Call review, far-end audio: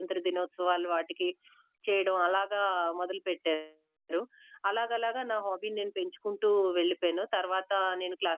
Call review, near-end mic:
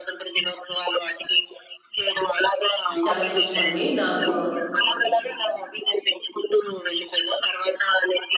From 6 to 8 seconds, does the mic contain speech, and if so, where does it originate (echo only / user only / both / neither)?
echo only